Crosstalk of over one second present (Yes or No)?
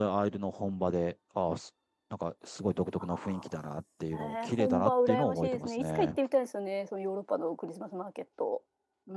Yes